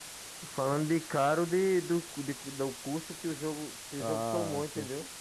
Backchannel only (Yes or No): No